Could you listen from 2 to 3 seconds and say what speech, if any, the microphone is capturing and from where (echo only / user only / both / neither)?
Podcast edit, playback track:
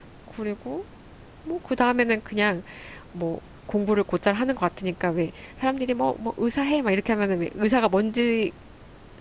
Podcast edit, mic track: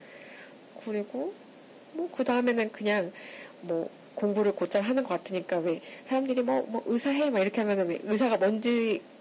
echo only